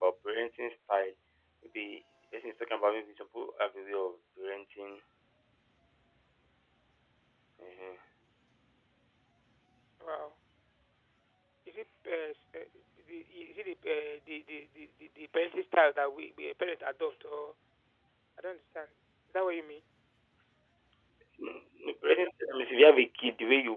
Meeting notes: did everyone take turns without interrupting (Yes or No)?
Yes